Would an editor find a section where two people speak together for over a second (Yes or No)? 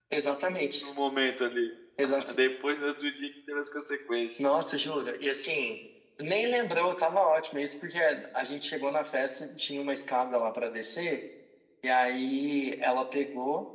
No